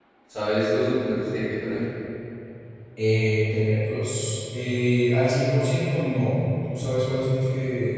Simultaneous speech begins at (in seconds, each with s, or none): none